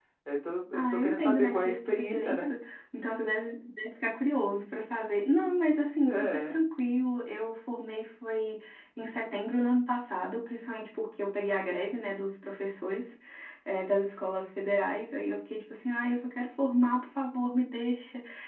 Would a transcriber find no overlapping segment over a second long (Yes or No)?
No